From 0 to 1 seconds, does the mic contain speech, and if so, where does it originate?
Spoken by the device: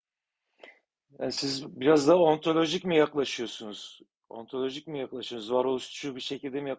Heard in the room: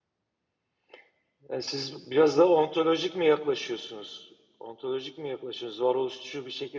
neither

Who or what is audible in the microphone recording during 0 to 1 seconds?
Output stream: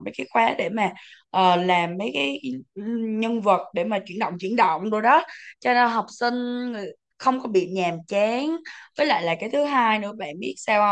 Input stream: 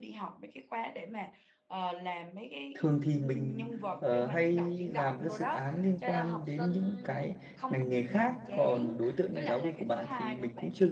echo only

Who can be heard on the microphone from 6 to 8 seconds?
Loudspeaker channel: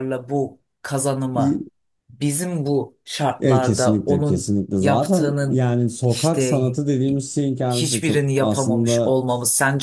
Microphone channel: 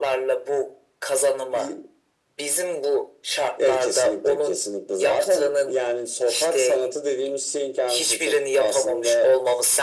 echo only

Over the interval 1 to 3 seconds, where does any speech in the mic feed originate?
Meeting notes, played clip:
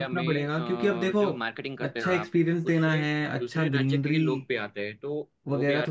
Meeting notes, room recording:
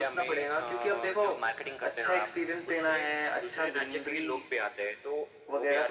echo only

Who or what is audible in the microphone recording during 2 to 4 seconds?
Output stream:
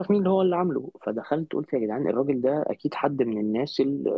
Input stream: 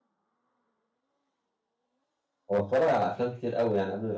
user only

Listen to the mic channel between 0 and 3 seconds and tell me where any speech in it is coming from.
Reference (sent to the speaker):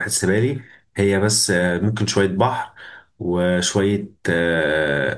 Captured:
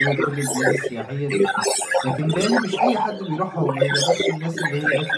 both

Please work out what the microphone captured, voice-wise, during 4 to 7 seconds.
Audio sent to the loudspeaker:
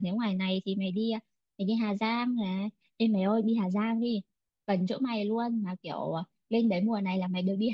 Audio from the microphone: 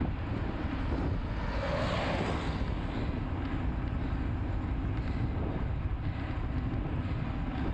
neither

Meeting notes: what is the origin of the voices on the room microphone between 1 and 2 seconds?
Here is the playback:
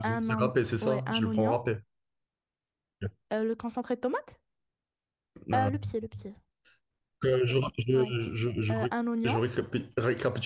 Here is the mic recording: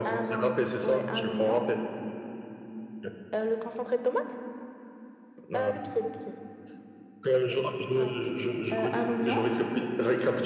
echo only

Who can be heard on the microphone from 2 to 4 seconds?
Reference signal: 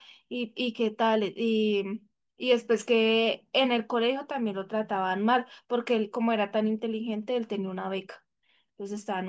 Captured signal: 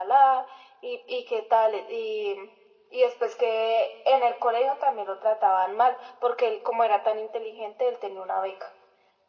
echo only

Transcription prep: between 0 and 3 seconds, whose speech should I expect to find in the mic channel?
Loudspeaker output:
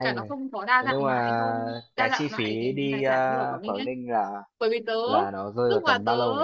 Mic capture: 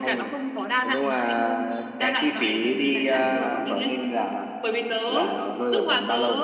echo only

